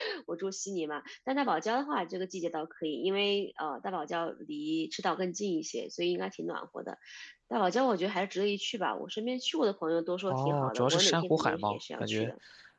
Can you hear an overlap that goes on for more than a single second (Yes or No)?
Yes